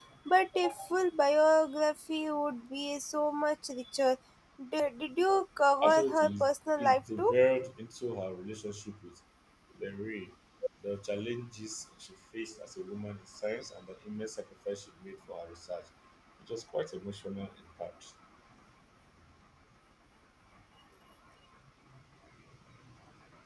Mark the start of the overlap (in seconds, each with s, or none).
5.8 s